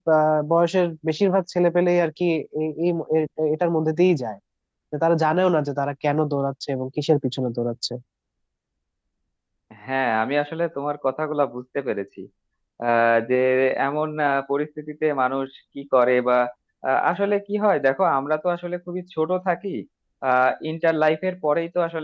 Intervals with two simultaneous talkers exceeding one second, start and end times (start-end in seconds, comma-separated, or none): none